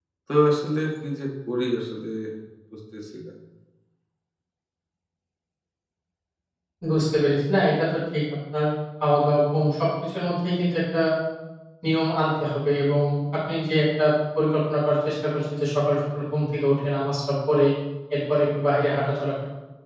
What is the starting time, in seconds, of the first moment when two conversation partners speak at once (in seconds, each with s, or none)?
none